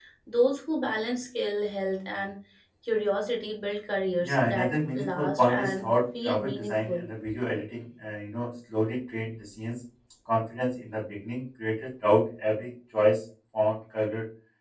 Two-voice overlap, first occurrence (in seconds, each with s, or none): 4.2 s